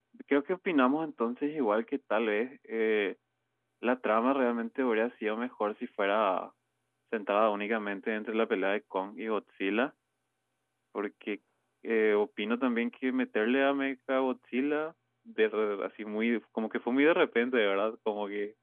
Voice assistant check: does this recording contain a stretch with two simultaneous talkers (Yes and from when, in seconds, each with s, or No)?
No